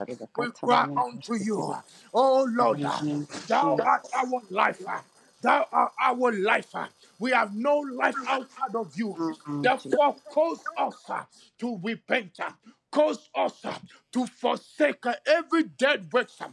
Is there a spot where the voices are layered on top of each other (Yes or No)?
Yes